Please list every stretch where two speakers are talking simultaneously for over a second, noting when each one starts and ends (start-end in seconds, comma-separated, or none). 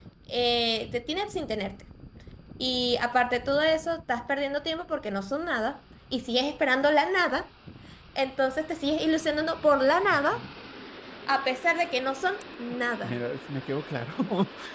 none